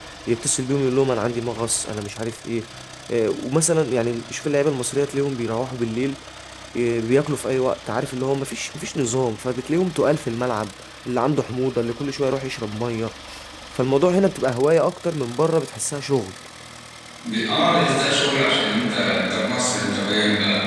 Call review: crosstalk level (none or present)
none